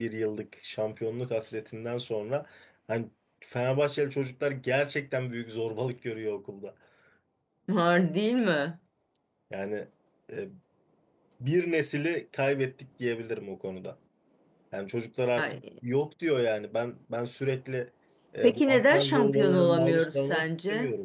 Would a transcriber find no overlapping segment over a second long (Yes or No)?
No